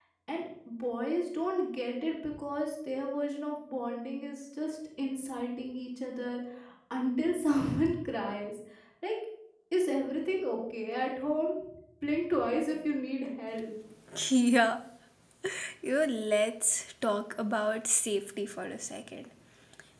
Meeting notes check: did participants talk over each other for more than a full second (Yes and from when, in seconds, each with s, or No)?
No